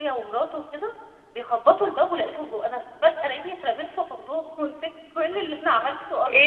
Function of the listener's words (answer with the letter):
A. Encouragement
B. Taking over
B